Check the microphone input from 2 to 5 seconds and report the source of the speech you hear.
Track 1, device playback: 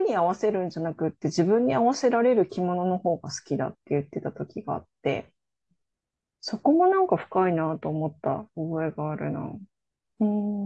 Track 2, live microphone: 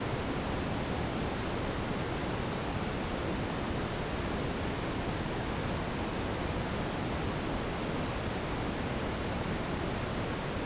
neither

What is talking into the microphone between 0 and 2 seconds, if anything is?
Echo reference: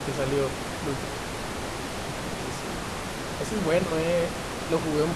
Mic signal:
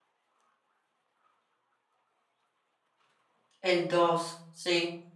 neither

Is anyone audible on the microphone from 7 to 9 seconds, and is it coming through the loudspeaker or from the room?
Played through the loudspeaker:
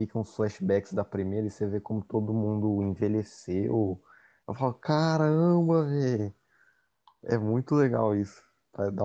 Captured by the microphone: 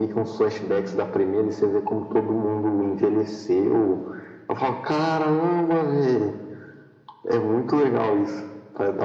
echo only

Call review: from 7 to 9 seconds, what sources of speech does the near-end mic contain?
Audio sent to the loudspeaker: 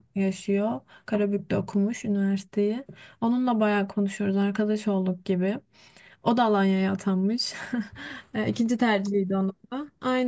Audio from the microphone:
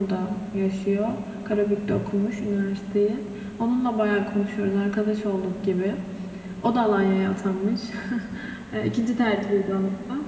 echo only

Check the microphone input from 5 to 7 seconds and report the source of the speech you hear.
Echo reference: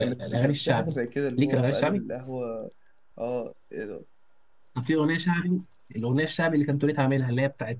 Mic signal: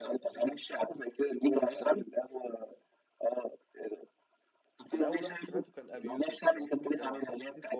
both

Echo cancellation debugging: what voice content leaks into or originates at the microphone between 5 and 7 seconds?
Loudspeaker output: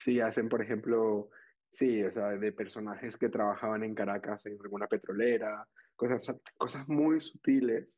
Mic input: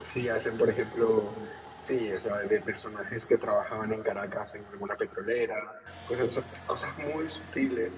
echo only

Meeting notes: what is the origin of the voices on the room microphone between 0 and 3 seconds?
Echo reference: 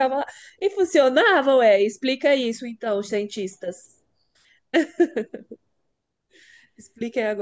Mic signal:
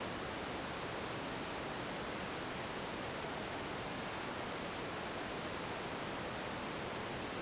neither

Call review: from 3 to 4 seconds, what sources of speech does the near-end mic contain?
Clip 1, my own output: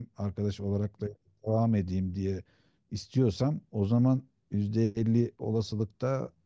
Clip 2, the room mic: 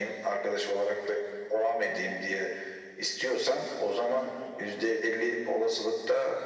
echo only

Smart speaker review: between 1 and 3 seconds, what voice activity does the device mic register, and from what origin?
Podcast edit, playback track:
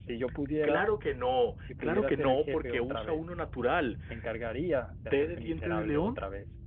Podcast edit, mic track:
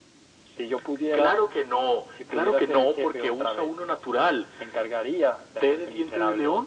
echo only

